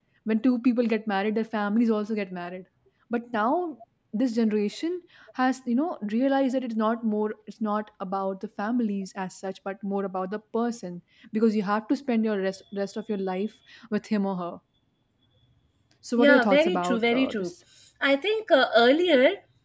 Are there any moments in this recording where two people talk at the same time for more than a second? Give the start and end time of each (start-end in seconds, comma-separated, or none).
16.2-17.5